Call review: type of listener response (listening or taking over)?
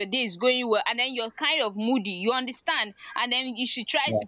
listening